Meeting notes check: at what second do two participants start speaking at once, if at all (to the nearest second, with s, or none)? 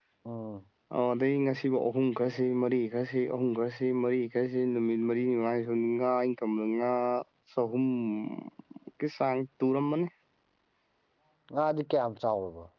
none